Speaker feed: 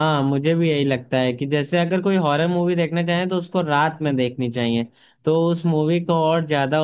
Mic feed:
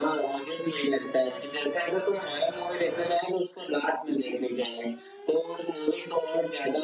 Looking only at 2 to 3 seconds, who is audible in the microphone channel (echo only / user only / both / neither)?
echo only